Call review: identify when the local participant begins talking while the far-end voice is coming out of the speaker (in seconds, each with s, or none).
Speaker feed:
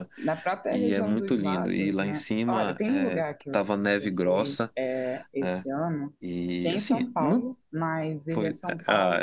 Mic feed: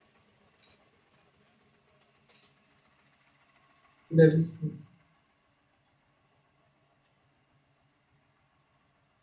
4.1 s